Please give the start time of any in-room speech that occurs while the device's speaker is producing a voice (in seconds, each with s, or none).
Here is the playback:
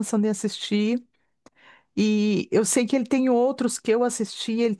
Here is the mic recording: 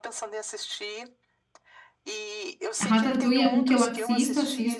2.8 s